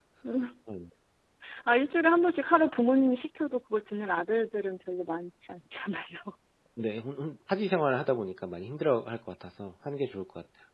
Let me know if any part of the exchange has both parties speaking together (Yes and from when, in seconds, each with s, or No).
No